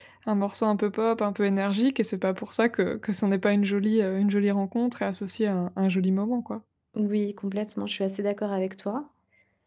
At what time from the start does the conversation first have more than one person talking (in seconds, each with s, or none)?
none